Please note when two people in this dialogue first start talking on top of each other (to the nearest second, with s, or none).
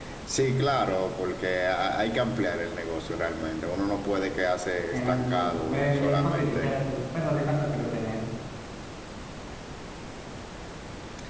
5 s